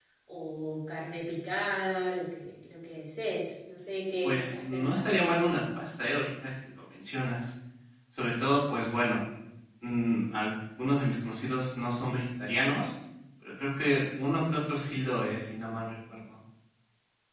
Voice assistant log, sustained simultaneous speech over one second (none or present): present